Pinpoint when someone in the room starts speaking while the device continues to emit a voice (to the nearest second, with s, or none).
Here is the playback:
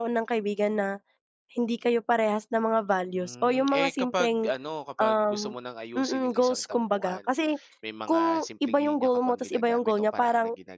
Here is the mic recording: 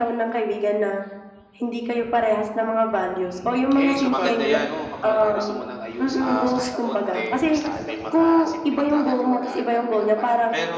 4 s